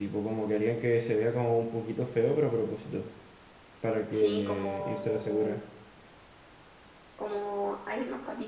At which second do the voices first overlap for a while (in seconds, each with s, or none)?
4.1 s